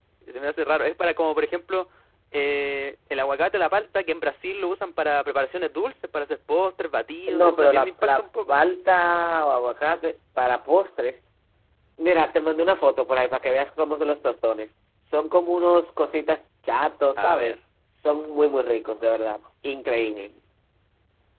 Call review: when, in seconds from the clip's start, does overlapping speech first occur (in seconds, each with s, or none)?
7.3 s